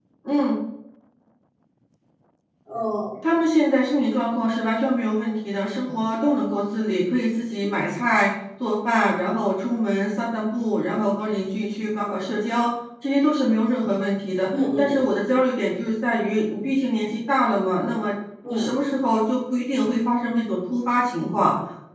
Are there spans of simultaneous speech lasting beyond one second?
No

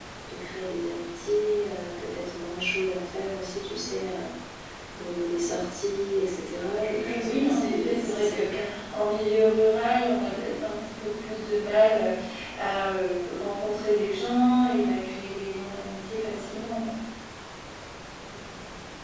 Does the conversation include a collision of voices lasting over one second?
Yes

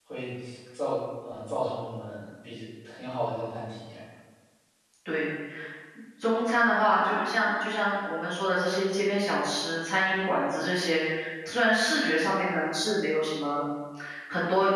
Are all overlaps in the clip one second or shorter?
Yes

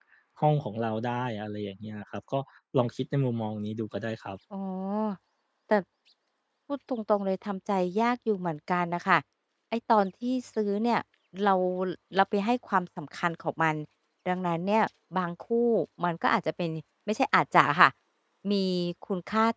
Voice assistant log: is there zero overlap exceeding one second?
Yes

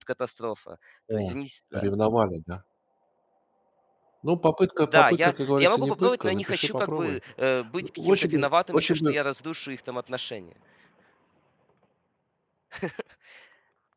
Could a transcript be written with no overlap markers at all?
No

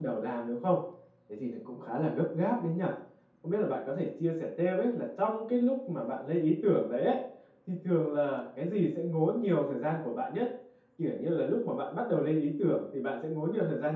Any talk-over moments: No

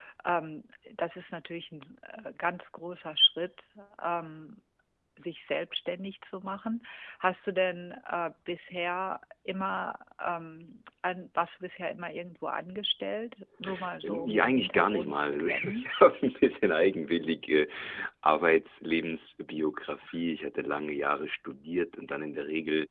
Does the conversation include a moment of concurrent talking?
Yes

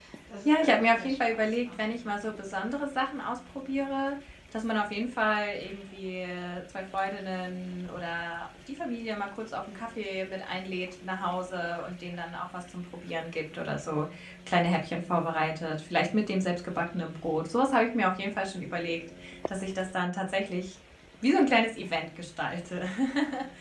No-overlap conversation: No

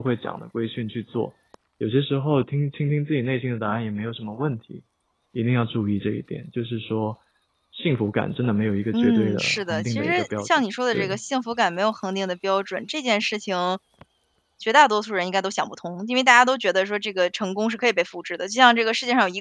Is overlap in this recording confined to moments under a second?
No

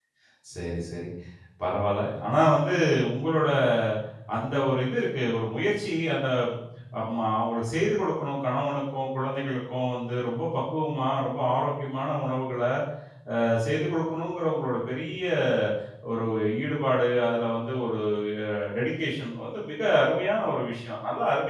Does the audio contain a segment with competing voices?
No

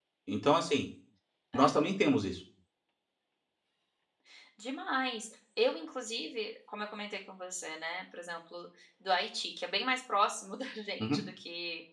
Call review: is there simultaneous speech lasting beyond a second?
No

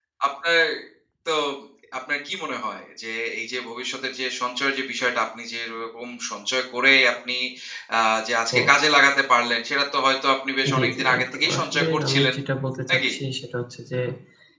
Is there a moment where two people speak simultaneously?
Yes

